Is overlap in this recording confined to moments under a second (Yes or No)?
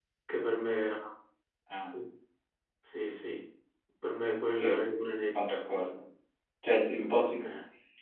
Yes